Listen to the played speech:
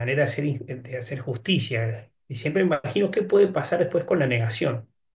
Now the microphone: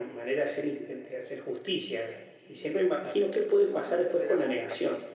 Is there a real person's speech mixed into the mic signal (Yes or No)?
Yes